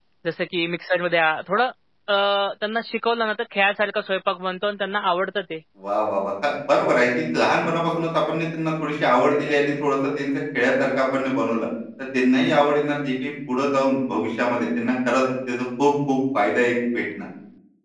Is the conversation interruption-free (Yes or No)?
Yes